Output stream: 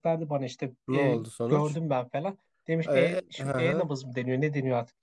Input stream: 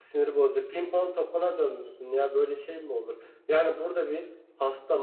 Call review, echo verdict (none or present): none